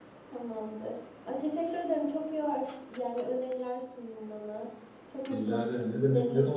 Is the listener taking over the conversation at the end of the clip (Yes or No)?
Yes